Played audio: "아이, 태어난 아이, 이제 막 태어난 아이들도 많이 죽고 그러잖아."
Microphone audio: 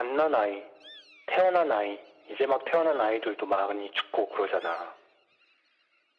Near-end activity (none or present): none